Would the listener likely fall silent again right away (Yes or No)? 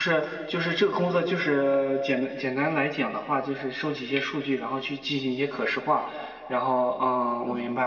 Yes